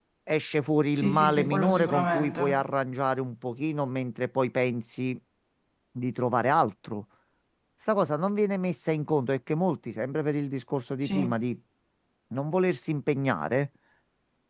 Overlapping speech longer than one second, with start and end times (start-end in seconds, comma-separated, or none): 0.9-2.6